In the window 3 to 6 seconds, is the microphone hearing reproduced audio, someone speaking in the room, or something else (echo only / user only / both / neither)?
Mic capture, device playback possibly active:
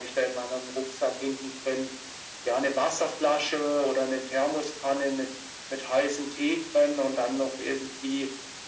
echo only